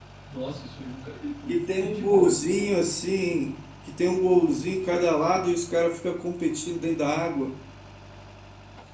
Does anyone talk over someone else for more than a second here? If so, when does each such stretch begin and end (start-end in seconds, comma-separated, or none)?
1.5-2.8